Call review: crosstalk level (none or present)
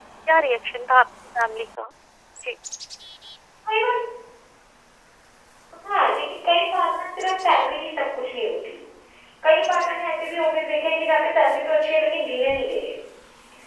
none